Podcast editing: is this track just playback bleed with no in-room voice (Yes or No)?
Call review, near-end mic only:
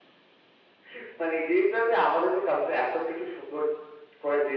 Yes